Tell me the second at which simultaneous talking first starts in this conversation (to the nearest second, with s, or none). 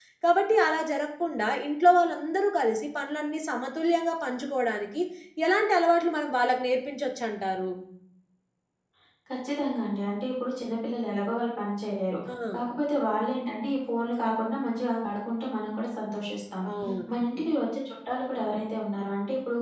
none